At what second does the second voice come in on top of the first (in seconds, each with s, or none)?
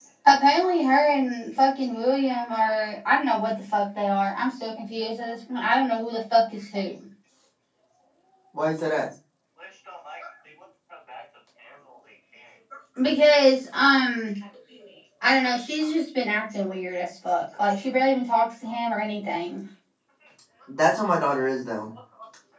none